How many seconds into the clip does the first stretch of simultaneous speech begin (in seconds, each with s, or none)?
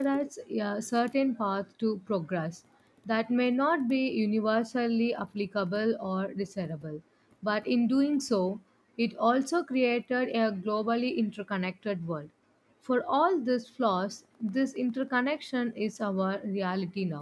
none